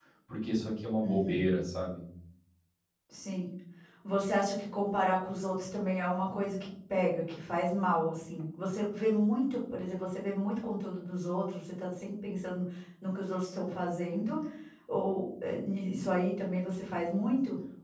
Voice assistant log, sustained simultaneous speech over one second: none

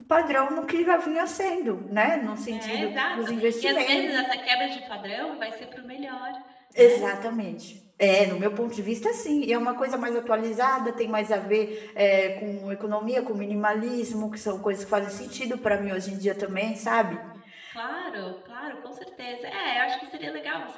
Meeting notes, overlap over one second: present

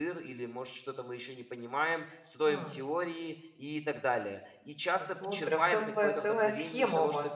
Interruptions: present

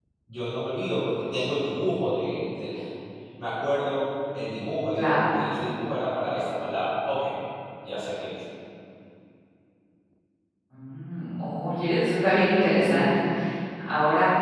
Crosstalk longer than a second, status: none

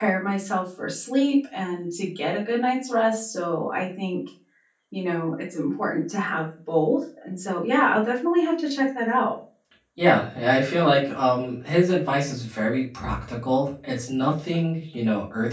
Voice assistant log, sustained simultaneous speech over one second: none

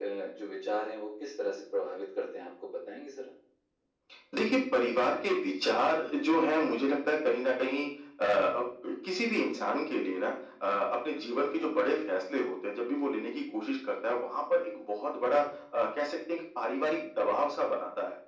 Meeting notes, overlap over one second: none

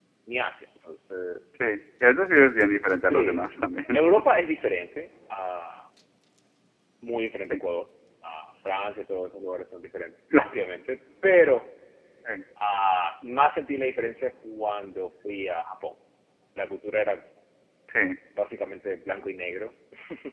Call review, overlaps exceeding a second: none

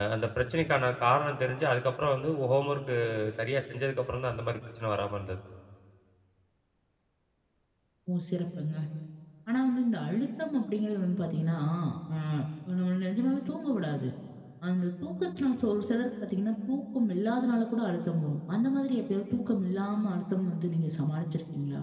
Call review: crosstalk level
none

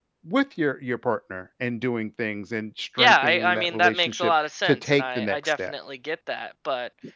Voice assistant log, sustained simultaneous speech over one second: present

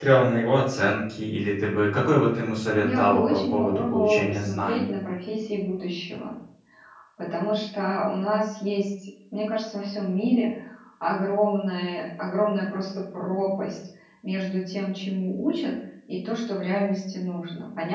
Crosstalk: present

